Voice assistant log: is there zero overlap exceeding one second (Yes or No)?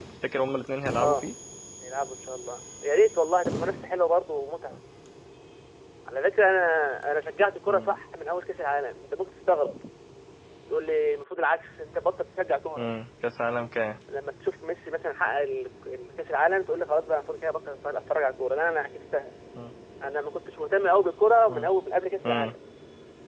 Yes